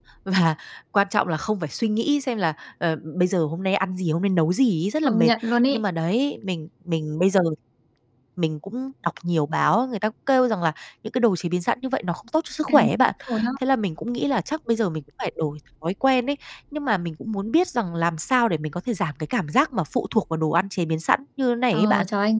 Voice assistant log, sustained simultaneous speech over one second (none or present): none